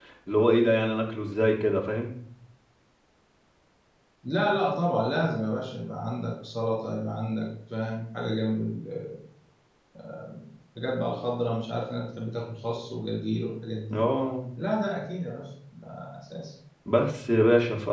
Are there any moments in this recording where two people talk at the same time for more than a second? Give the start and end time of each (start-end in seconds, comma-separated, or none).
none